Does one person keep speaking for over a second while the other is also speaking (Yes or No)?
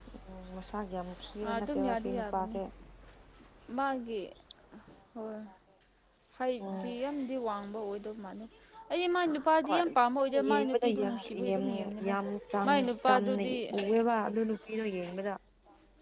Yes